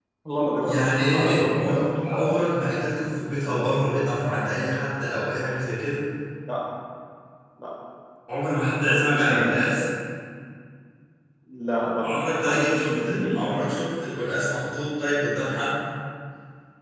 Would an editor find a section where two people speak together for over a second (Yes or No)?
Yes